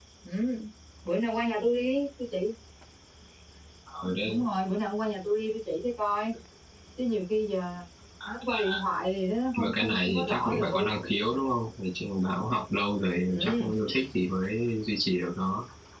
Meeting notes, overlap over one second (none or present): present